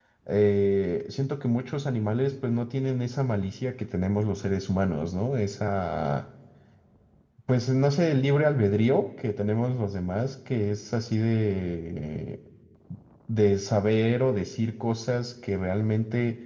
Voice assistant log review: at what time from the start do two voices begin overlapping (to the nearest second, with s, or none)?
none